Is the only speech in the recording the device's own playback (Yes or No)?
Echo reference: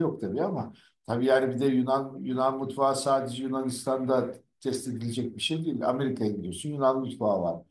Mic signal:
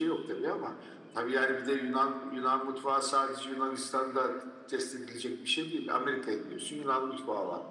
Yes